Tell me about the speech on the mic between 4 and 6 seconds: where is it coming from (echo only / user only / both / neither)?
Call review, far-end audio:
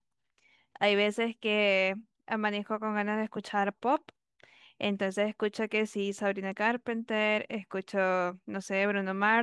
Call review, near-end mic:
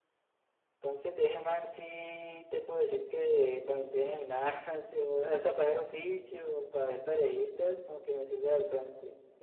user only